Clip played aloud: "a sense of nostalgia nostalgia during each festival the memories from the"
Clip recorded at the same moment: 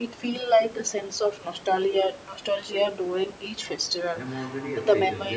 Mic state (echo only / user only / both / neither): both